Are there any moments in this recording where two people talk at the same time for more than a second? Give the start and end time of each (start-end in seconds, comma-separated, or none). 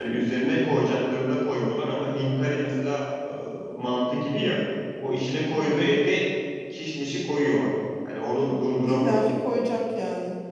none